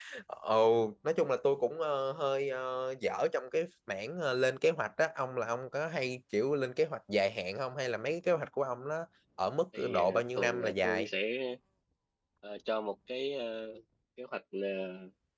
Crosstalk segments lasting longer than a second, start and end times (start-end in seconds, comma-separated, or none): 9.8-11.1